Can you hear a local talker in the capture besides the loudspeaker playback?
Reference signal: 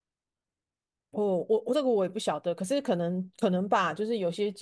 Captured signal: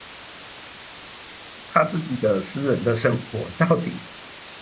Yes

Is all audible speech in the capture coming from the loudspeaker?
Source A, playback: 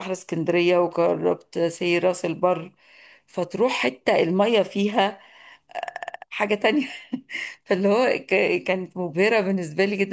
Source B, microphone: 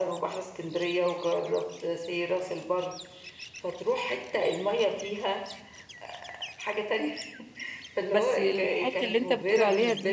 No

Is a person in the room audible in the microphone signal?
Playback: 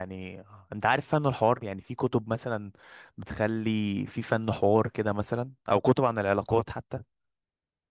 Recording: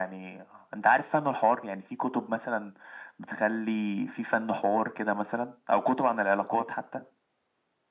No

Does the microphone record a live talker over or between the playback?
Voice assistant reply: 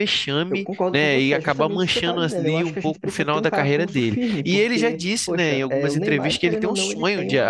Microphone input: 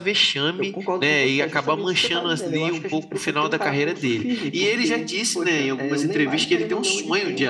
No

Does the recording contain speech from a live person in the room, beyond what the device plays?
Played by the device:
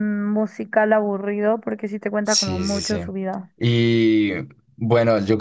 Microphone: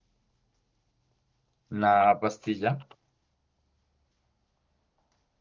Yes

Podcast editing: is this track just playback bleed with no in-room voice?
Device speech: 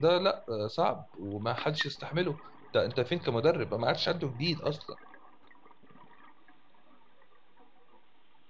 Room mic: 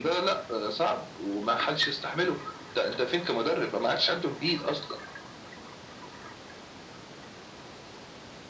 Yes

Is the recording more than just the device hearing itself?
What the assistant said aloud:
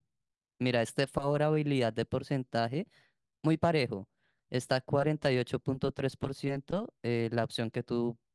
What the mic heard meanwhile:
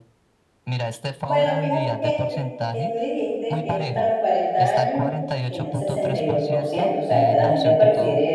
Yes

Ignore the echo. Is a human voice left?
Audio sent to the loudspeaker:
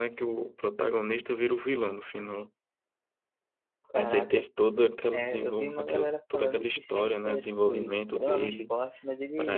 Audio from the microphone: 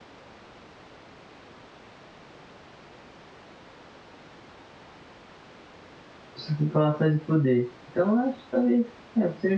Yes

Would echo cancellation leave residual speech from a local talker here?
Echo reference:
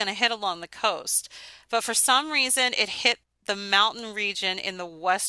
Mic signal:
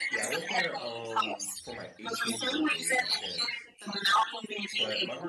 Yes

